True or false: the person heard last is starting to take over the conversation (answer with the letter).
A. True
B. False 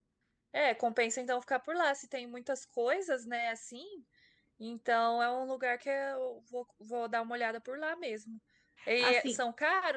B